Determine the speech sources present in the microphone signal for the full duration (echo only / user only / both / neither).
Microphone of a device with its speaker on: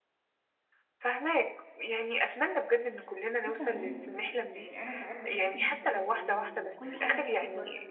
both